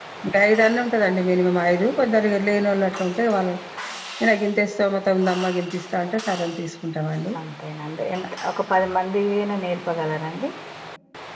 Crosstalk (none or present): none